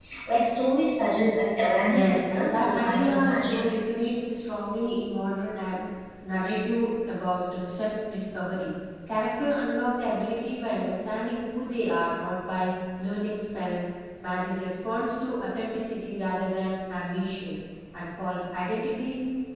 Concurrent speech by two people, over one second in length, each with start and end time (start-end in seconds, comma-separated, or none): 1.9-3.6